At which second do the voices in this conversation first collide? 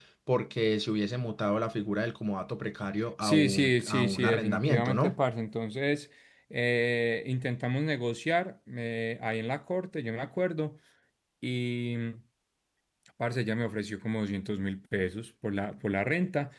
3.2 s

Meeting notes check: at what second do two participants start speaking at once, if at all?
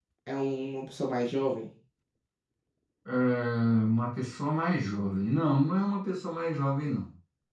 none

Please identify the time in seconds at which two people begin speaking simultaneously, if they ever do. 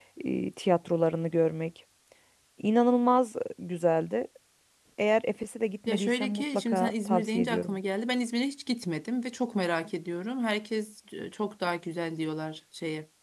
5.9 s

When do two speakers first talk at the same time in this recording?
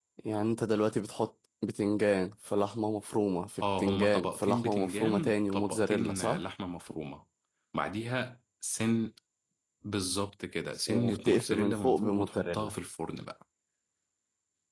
3.6 s

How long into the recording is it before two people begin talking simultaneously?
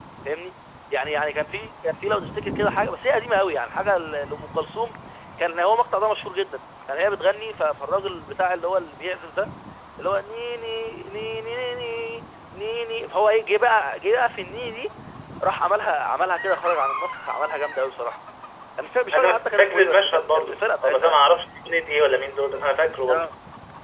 19.1 s

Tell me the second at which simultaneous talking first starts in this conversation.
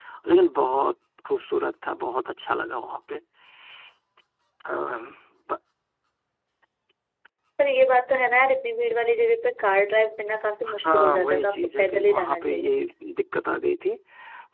10.7 s

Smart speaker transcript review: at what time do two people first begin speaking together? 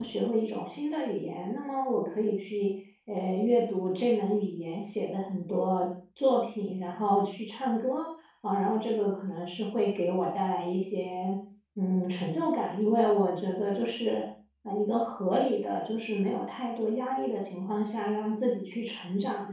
none

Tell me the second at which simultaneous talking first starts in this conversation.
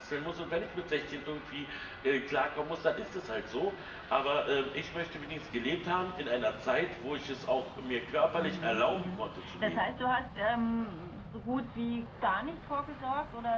8.4 s

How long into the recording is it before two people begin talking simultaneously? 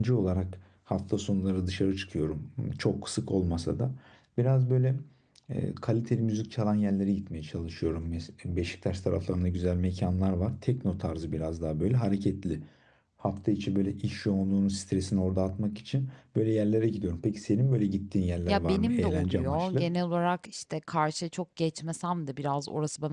18.5 s

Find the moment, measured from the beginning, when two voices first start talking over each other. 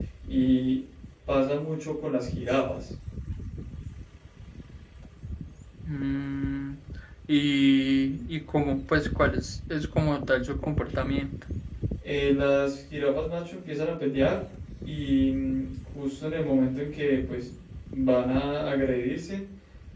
none

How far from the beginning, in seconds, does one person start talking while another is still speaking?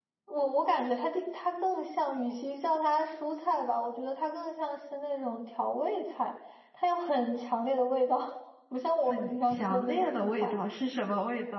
9.1 s

